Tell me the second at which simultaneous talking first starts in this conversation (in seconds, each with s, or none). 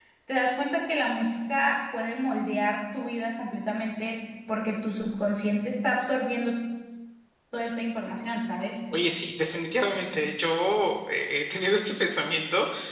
none